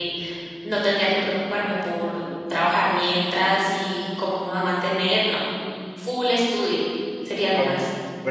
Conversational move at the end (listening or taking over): taking over